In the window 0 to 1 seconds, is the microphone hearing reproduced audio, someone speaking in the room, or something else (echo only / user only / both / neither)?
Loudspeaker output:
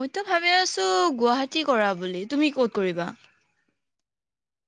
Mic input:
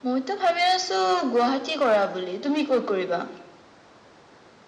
echo only